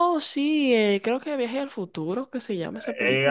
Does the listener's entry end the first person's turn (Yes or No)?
Yes